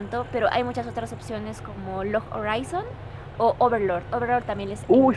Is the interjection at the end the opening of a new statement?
Yes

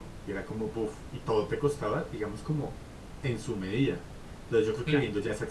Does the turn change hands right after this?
No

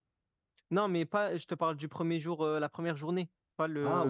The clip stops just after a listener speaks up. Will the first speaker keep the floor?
No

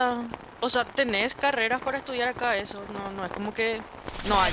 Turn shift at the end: Yes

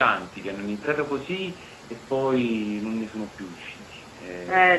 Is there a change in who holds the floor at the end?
Yes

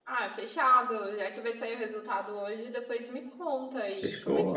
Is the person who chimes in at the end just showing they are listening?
No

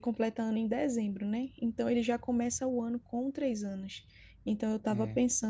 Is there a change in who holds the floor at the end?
No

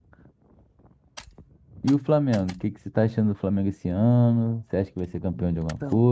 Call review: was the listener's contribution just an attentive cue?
No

